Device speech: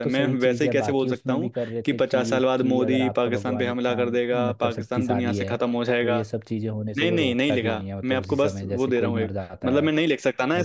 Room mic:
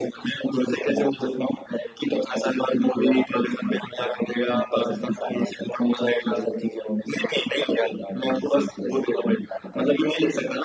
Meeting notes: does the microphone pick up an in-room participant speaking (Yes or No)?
No